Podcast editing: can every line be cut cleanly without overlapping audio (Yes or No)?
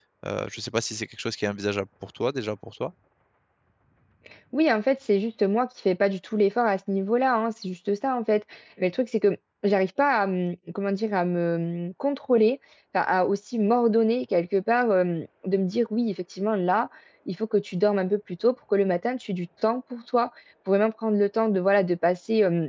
Yes